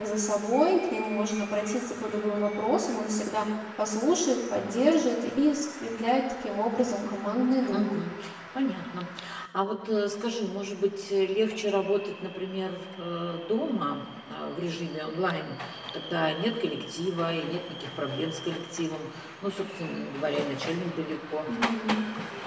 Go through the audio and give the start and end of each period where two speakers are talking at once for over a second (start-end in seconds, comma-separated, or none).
none